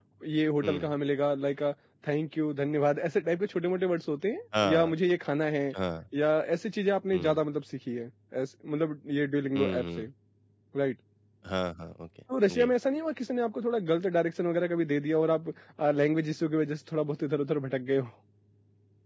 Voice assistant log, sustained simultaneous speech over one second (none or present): none